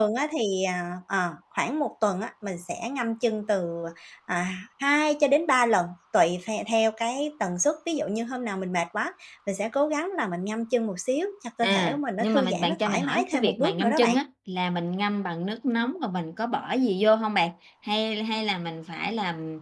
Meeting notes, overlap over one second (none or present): present